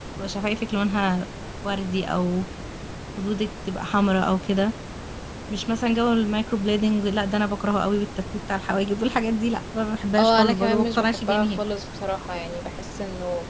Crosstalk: present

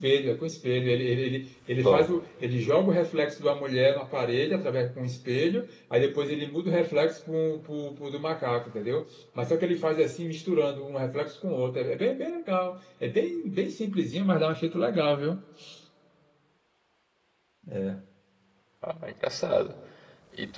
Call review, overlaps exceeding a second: none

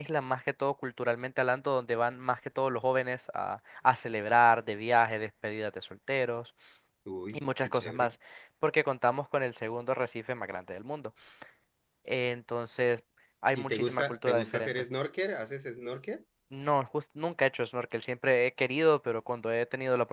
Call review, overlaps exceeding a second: present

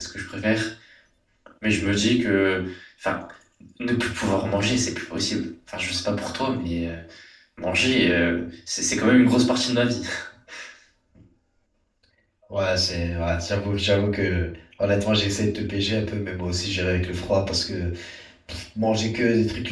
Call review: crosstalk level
none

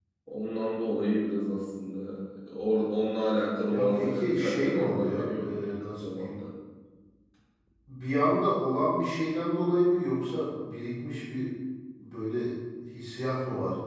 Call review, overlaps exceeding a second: present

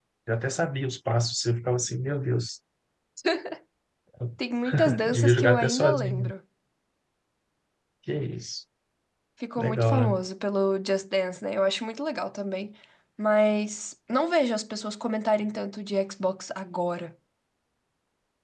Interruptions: present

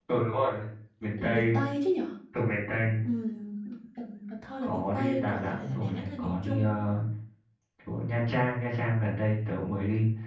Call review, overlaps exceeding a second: present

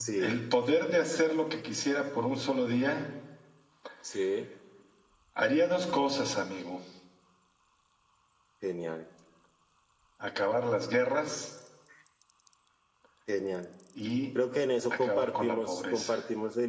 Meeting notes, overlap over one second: present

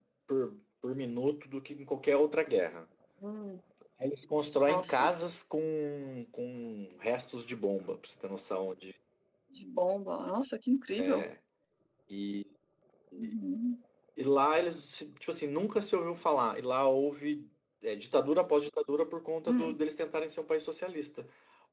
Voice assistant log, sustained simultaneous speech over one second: none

